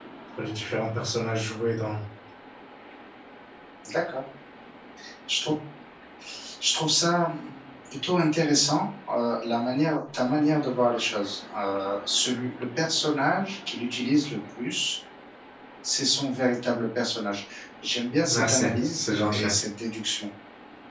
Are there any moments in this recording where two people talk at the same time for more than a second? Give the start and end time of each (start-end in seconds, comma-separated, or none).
18.2-19.5